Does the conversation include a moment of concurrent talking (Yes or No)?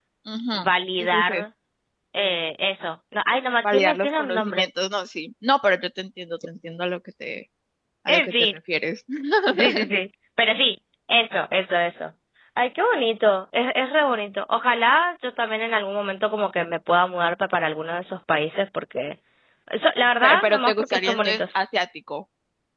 Yes